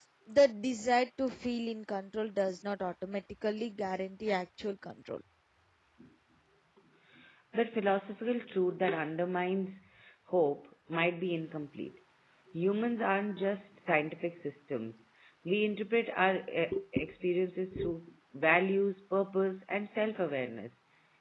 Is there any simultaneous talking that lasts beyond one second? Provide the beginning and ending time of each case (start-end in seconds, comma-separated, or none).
none